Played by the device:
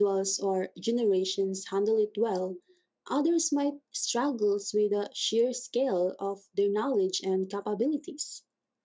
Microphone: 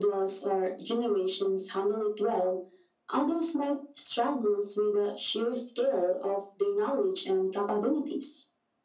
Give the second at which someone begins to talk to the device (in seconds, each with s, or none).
none